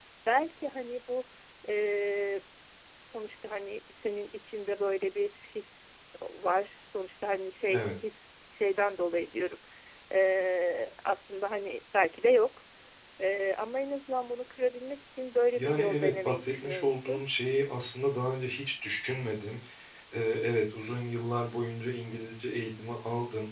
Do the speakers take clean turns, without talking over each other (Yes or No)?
No